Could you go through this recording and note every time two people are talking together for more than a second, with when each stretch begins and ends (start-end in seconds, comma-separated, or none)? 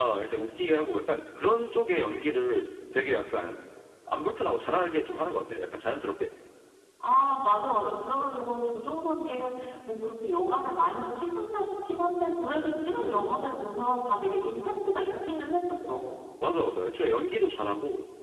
none